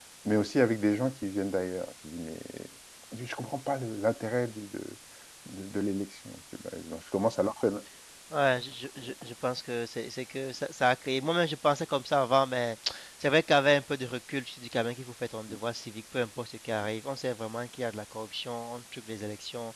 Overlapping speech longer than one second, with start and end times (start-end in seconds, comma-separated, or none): none